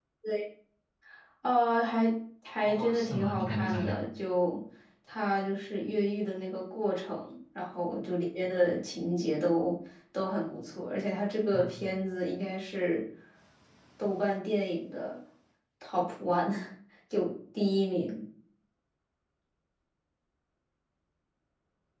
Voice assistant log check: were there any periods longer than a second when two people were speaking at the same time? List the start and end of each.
2.6-4.0

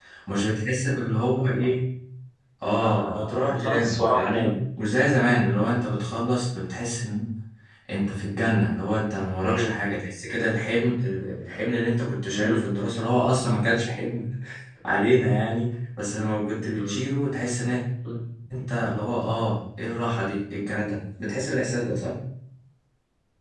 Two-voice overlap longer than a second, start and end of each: 2.8-4.6

